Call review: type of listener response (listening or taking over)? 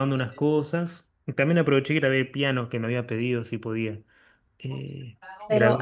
taking over